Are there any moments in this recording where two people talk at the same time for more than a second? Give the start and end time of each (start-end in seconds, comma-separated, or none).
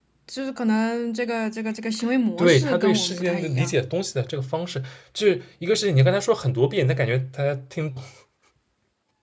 2.4-3.7